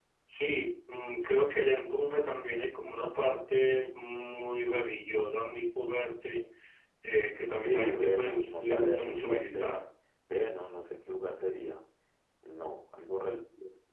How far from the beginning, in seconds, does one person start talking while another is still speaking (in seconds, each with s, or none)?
7.5 s